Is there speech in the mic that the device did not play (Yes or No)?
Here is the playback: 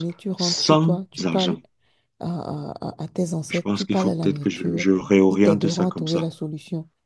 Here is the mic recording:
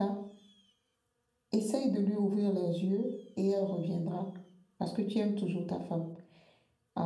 Yes